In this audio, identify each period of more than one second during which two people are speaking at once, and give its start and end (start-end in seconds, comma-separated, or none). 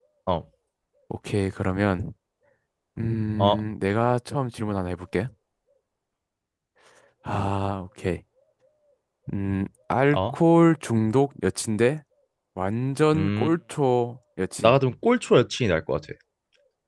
none